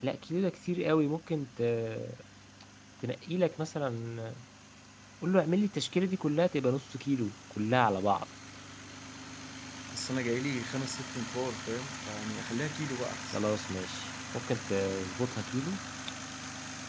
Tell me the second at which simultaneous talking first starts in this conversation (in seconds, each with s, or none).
none